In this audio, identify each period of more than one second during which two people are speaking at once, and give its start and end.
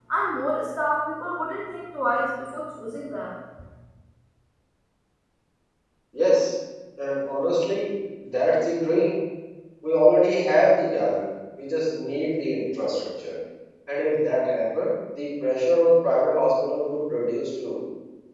none

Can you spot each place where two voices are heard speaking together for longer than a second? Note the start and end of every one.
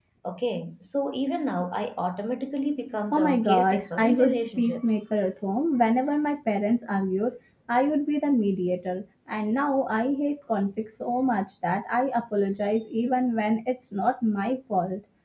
3.1-4.8

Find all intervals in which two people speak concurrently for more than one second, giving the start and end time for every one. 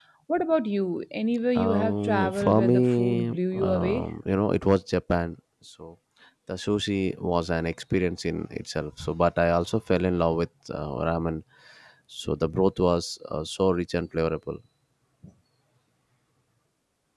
1.6-4.1

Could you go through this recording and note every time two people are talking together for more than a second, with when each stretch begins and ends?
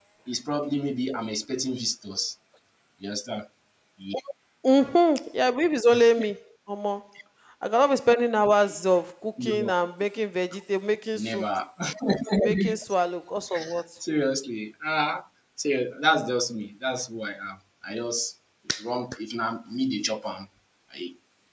none

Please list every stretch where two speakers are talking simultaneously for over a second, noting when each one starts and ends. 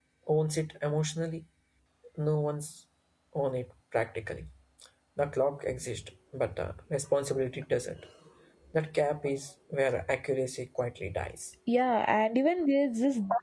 none

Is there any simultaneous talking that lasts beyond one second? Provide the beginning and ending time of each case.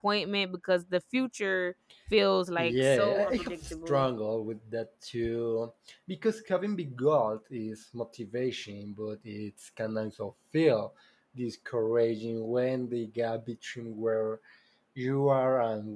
2.6-4.1

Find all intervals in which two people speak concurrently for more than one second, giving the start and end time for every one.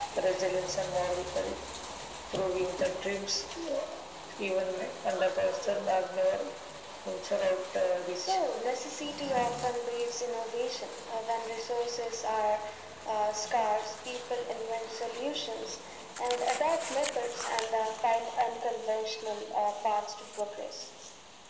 none

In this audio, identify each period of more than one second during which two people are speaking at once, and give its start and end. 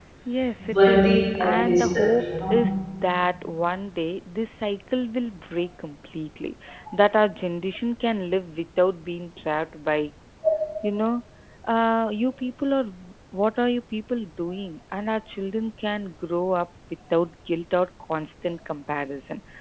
0.7-2.7

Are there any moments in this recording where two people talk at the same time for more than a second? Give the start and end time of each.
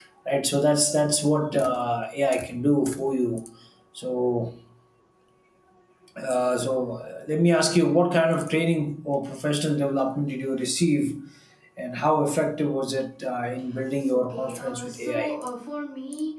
14.1-15.3

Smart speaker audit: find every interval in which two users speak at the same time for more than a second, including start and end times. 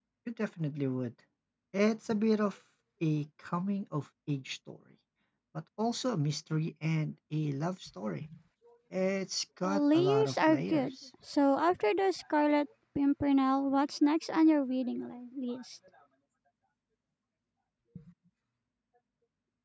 9.6-10.9

